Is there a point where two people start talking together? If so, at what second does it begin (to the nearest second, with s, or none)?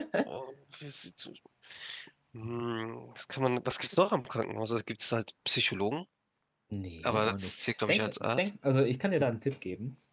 7 s